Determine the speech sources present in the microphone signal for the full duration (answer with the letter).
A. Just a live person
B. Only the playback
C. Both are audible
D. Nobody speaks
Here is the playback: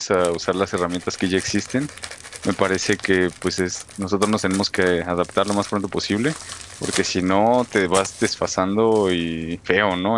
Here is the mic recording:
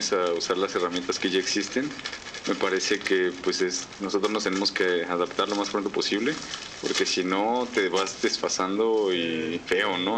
C